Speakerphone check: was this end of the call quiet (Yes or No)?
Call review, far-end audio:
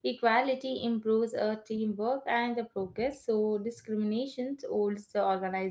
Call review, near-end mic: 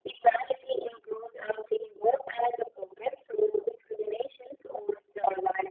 Yes